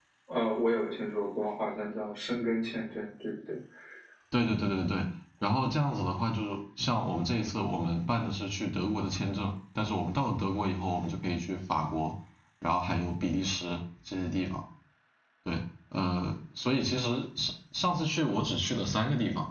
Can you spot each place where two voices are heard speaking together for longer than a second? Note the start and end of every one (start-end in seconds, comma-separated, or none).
none